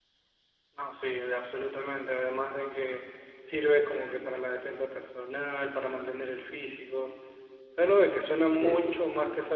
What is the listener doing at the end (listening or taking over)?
listening